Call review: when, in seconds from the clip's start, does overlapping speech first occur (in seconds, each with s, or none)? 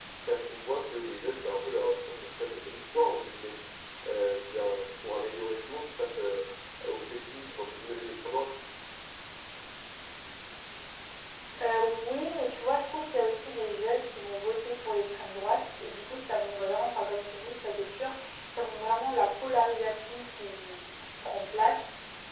none